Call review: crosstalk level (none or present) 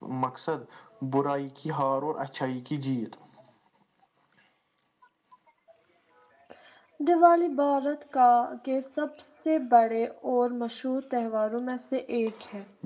none